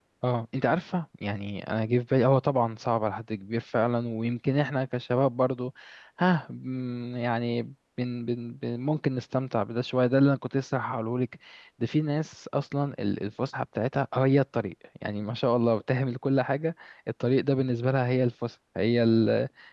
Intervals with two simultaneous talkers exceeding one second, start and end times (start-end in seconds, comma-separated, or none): none